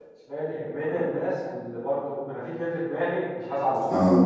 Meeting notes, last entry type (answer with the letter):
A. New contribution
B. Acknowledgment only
B